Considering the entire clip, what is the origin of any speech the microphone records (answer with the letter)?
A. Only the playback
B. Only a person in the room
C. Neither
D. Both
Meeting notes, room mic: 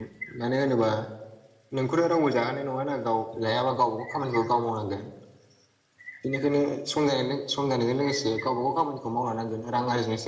B